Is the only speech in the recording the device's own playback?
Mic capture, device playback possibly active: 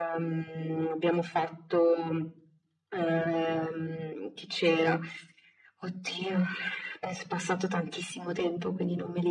Yes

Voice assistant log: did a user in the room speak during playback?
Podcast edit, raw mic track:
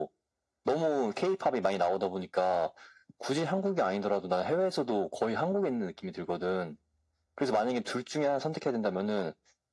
No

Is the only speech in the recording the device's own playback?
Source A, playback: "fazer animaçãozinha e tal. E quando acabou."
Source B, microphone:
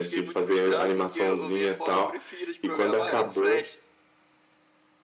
No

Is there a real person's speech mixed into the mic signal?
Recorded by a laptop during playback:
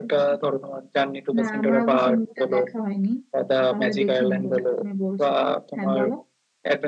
Yes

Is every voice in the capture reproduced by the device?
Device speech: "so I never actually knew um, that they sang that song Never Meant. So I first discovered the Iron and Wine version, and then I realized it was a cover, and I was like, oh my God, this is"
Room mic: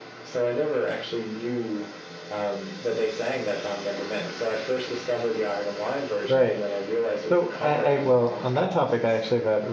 No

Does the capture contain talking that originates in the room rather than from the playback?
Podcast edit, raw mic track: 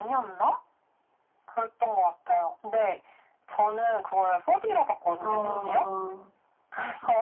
Yes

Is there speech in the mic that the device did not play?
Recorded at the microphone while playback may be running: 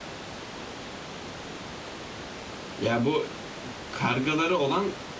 Yes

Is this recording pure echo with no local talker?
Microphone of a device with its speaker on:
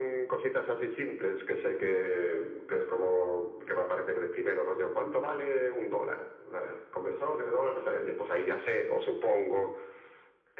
Yes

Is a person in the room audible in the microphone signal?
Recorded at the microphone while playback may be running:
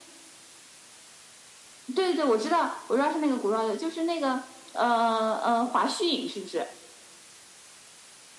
No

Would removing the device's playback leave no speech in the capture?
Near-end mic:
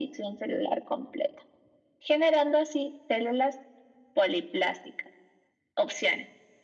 Yes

